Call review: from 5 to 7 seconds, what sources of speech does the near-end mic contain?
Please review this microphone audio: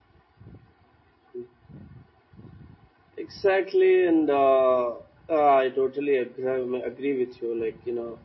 echo only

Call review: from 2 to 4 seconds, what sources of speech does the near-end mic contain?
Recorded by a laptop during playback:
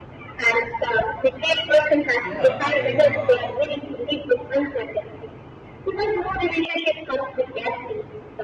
both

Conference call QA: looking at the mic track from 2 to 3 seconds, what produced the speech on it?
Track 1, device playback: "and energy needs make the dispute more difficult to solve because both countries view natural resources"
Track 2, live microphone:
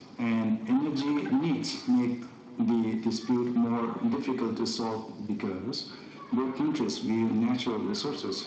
echo only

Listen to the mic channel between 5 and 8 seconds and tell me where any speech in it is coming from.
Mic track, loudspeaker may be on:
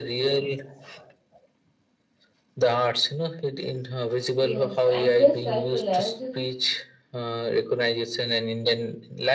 both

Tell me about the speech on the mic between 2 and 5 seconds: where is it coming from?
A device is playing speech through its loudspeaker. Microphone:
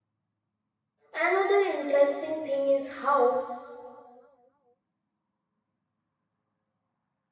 user only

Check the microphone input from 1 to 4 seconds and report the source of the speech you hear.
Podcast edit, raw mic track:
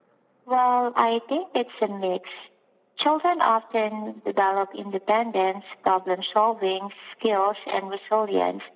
echo only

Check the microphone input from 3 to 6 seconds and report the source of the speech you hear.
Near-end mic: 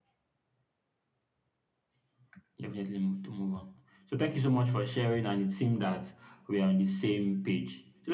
echo only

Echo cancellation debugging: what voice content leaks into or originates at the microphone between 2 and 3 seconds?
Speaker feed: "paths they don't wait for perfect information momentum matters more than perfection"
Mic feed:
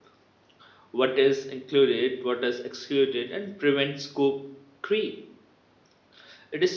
user only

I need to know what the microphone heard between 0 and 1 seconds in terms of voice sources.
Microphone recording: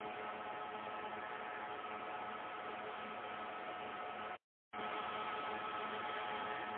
neither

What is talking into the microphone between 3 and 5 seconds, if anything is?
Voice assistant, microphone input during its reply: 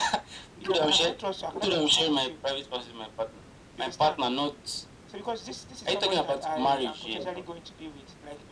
echo only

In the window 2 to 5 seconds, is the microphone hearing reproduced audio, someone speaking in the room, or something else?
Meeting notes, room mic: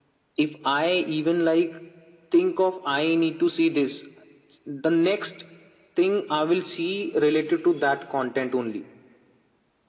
echo only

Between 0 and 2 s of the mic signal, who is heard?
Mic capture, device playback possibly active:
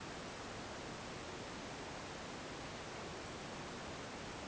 neither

